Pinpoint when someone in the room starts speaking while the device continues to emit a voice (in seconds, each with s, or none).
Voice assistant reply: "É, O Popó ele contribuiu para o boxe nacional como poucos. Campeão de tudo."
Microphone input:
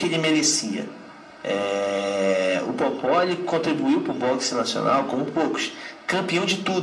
none